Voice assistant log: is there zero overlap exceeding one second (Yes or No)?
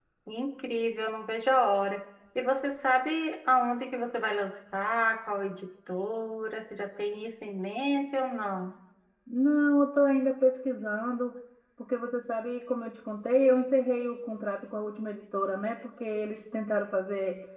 Yes